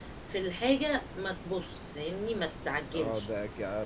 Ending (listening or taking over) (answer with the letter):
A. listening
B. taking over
B